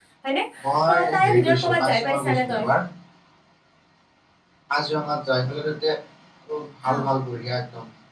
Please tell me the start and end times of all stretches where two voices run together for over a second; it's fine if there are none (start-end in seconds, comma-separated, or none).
0.9-2.6